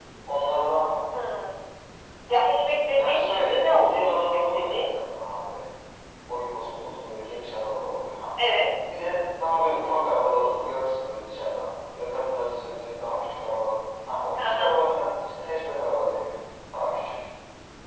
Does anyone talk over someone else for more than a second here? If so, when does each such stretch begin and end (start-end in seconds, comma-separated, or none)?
3.0-4.9